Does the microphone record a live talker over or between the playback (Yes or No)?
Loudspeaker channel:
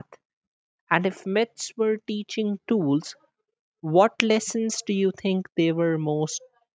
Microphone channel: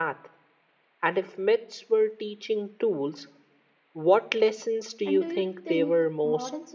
Yes